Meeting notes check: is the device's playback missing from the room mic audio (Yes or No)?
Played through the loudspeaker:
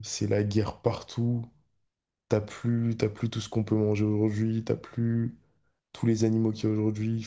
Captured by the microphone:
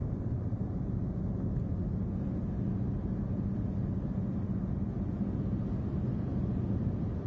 Yes